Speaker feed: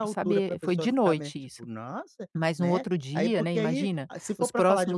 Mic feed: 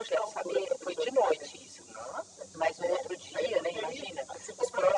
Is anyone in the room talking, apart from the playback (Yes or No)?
No